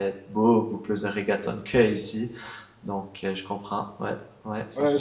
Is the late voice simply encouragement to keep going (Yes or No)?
No